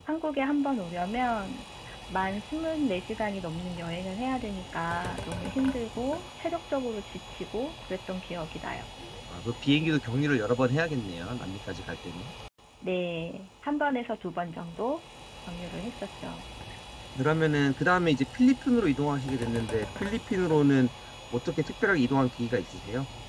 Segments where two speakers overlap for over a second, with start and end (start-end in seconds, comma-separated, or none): none